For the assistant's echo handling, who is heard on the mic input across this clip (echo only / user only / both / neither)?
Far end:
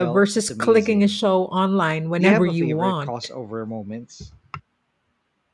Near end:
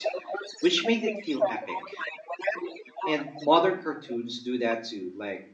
both